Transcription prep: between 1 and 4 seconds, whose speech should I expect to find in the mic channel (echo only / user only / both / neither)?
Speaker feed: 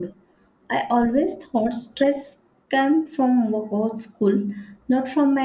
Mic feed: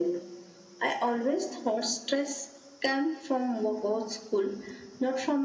echo only